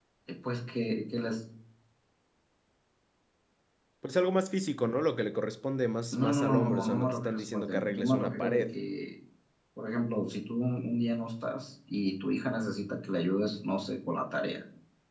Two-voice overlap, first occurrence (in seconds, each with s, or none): 6.1 s